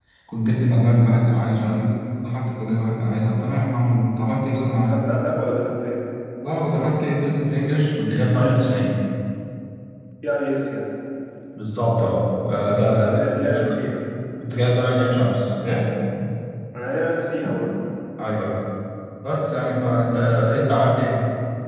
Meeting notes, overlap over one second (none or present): none